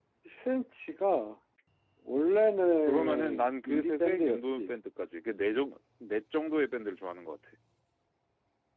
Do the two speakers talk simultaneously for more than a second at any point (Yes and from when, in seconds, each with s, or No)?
Yes, from 2.9 s